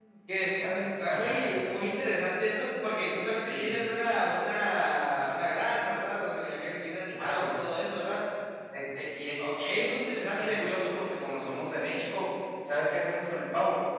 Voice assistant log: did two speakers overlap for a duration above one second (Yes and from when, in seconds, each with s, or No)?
No